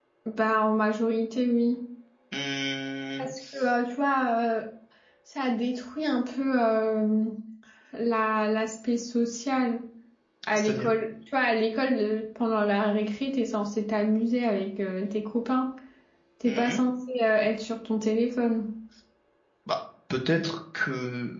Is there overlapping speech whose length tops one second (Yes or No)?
No